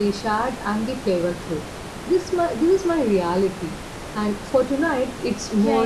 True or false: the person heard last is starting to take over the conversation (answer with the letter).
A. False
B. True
B